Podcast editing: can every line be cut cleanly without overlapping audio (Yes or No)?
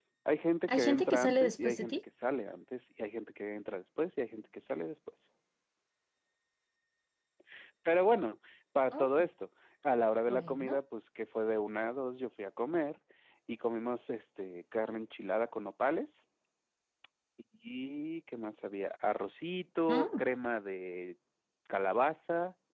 No